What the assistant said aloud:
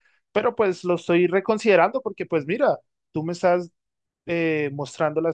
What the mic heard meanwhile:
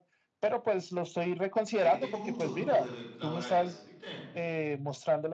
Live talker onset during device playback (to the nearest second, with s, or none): 2 s